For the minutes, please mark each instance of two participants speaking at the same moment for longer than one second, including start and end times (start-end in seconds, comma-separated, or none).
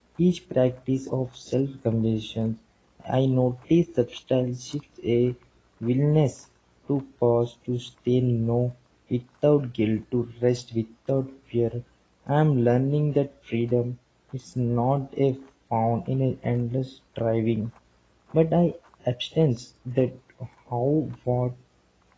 none